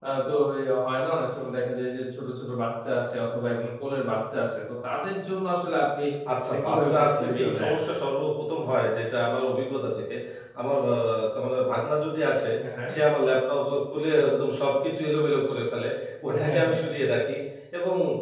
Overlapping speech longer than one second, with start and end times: 6.5-7.7

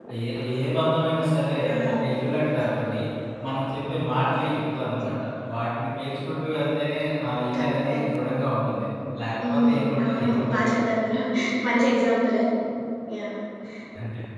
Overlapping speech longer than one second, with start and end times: 9.4-10.8

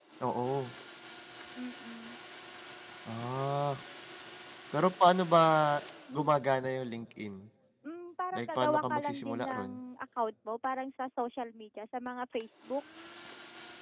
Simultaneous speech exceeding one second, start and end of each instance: 8.4-9.7

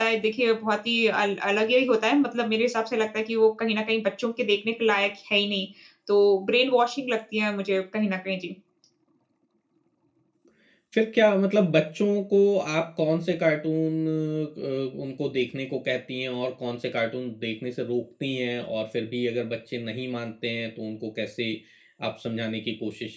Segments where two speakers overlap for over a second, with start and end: none

